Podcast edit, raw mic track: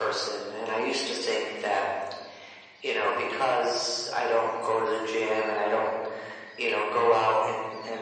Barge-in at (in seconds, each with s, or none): none